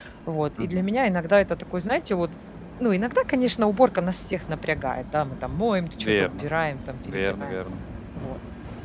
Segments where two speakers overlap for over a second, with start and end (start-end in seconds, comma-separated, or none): none